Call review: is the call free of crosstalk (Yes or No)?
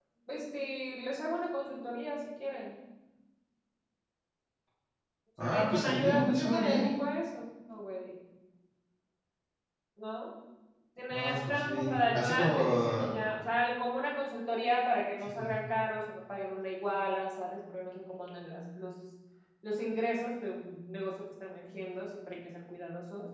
No